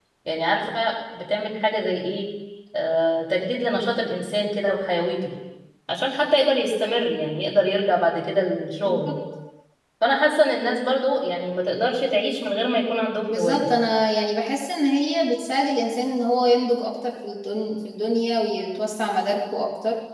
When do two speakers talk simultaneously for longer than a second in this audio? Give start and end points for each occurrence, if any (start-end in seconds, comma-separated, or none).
none